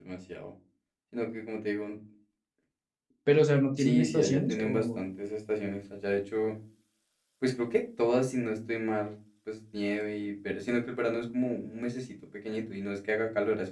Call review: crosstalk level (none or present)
present